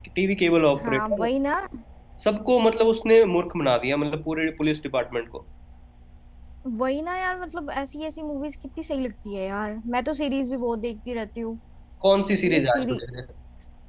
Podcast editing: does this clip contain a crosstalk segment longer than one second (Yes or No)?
No